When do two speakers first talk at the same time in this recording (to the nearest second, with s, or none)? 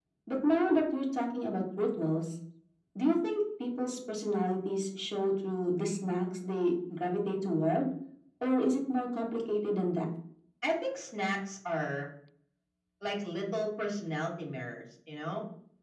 none